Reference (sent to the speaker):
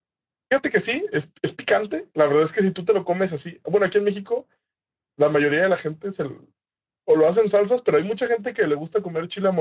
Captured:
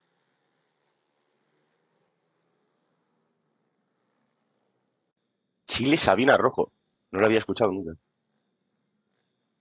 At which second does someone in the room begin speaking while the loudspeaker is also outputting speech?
5.7 s

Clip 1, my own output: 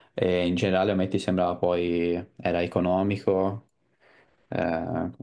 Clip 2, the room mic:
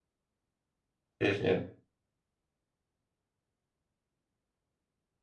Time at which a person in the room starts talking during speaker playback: 1.2 s

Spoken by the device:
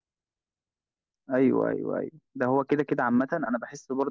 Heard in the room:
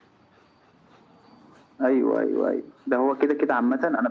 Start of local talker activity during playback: none

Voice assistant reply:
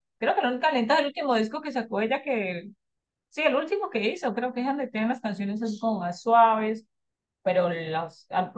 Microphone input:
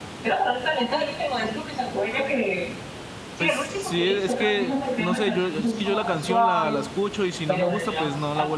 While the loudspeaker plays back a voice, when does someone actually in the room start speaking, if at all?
3.4 s

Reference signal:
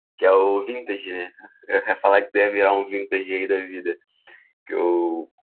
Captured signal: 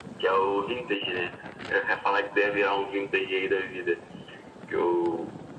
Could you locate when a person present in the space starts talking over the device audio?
none

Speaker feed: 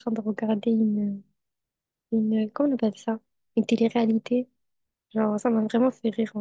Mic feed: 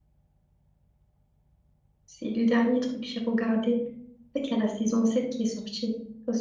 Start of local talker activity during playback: 2.1 s

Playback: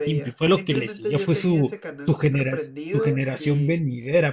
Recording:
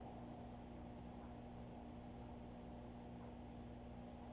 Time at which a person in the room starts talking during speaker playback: none

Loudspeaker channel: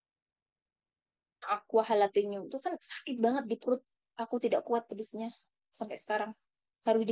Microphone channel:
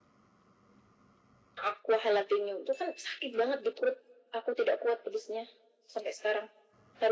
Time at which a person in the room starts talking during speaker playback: none

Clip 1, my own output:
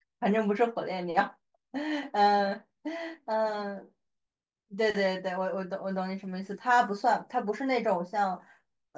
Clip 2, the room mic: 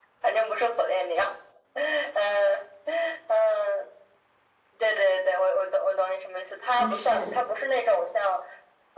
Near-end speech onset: 6.8 s

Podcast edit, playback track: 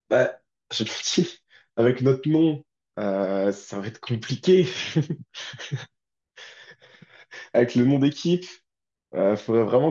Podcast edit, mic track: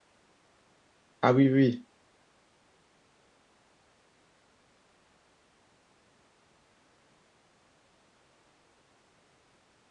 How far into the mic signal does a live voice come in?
1.2 s

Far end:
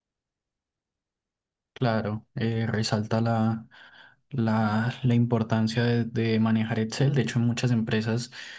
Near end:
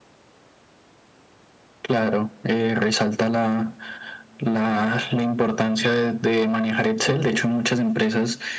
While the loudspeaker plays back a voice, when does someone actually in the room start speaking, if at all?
none

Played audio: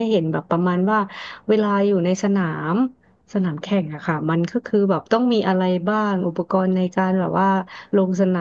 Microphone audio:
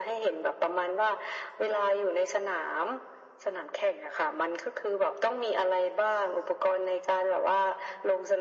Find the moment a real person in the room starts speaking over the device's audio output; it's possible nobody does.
none

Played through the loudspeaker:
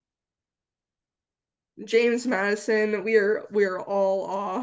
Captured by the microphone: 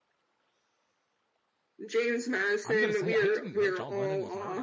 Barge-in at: 2.6 s

